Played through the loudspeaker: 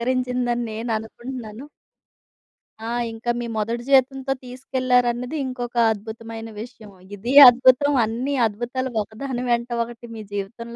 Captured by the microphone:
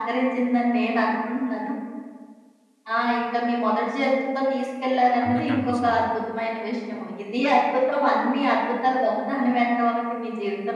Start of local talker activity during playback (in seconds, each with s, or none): 5.2 s